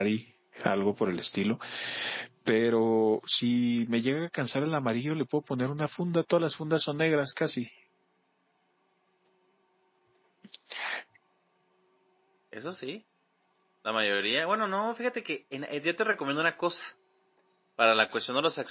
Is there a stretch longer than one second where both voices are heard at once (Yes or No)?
No